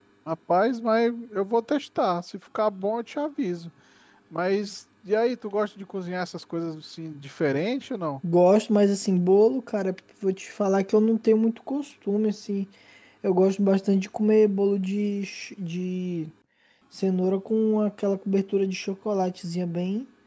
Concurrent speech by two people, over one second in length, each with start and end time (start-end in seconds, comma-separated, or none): none